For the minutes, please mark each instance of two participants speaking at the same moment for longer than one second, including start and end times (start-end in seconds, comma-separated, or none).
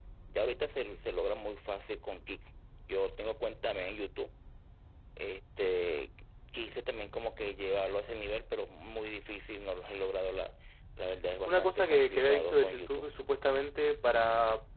11.4-13.2